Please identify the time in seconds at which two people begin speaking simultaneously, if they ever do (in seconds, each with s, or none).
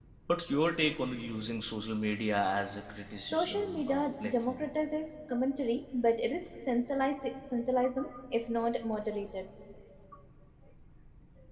3.2 s